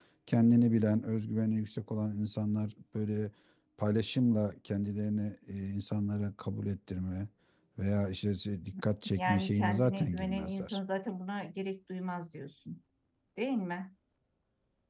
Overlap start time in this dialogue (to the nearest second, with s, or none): 9 s